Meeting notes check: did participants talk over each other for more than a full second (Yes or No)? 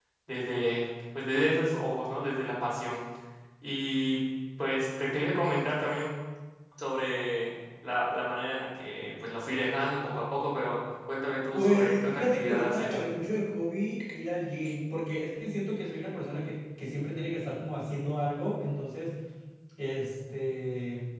Yes